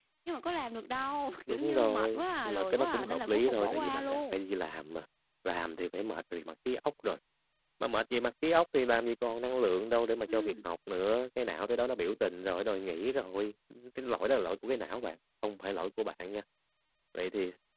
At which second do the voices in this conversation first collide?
1 s

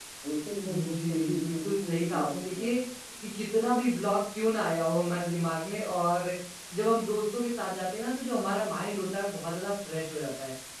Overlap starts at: 1 s

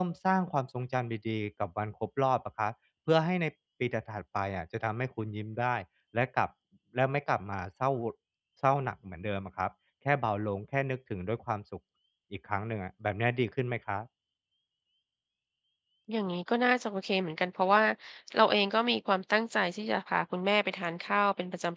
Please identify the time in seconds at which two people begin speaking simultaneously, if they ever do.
none

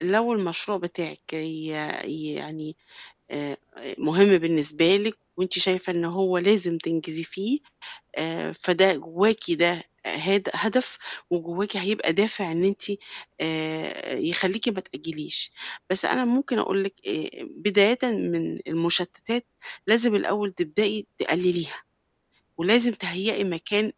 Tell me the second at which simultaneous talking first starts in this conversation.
none

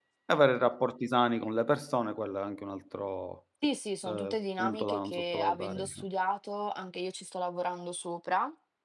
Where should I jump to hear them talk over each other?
4 s

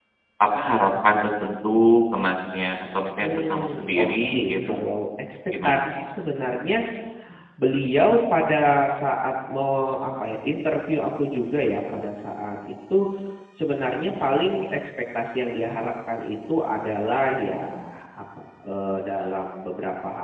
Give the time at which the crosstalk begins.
3 s

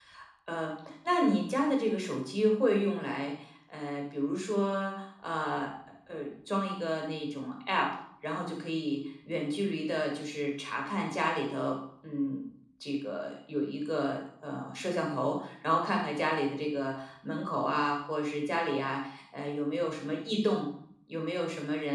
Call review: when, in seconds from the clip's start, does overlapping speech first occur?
none

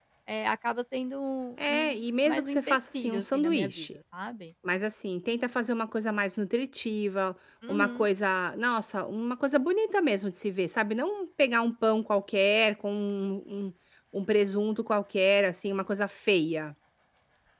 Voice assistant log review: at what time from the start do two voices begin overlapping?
2 s

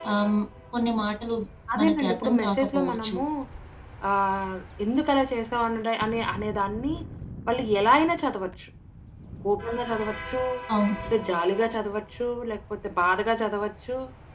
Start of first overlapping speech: 2 s

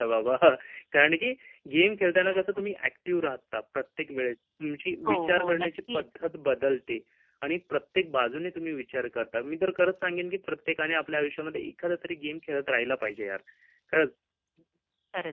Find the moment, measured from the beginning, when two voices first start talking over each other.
5 s

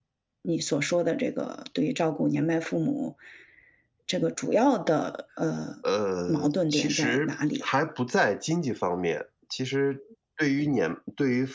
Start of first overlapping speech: 6 s

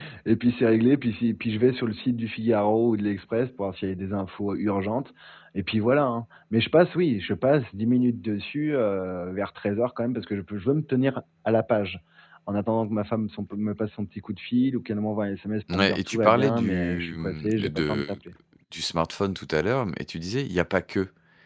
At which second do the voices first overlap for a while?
16 s

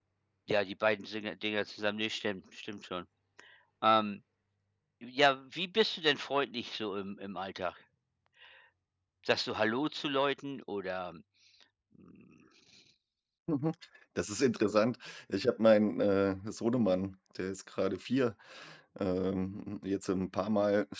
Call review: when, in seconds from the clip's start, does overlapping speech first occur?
none

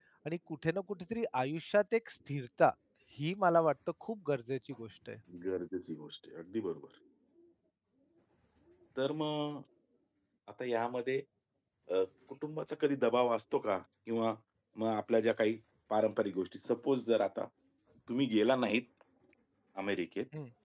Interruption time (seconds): none

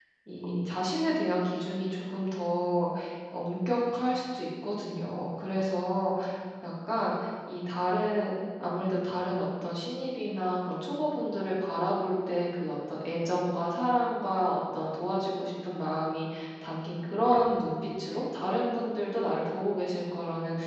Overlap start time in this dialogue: none

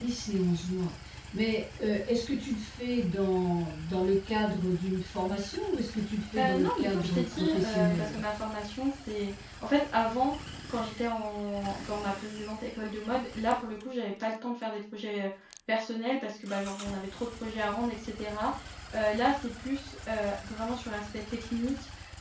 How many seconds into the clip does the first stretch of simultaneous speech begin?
6 s

